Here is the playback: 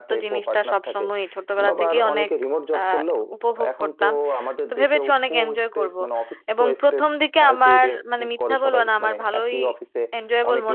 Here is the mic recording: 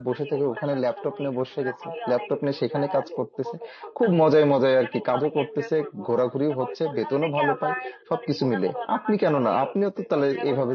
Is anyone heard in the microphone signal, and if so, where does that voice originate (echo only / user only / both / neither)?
both